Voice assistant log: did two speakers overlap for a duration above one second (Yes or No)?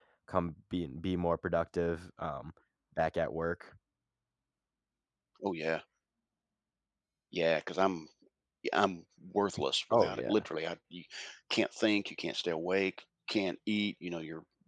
No